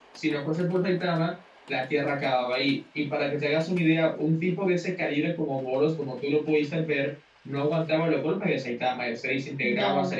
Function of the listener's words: listening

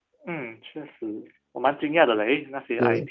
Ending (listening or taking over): listening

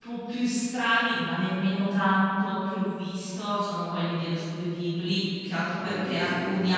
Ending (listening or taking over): listening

